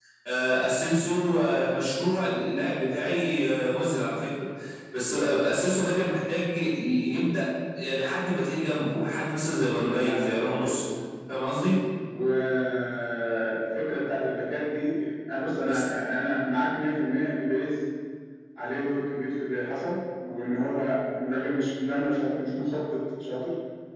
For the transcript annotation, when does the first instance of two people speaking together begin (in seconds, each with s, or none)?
9.6 s